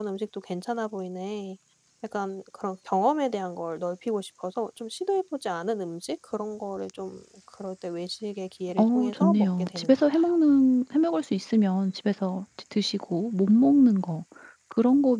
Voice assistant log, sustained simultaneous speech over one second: present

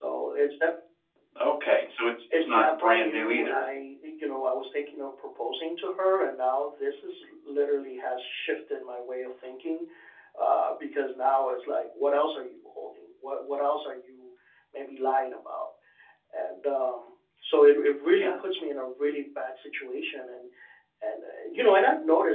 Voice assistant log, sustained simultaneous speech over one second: present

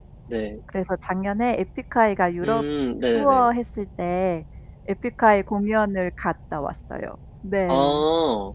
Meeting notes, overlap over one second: none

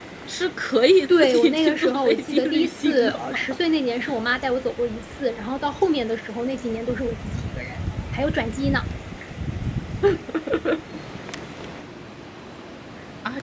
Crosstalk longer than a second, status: present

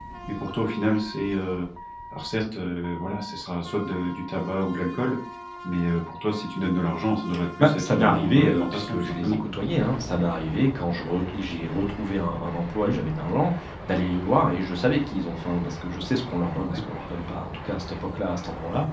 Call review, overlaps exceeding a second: present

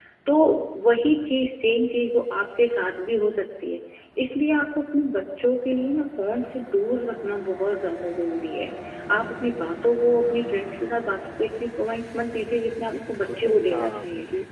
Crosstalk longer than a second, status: present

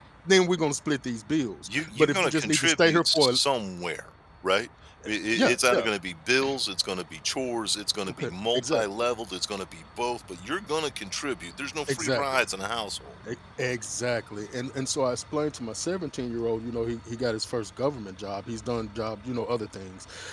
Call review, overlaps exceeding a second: present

